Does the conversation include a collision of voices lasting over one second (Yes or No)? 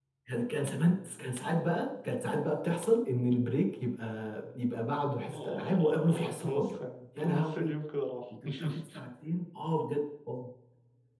Yes